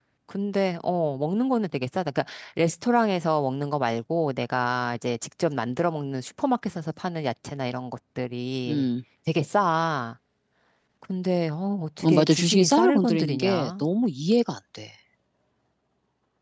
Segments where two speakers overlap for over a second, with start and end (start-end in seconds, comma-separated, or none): 12.0-13.8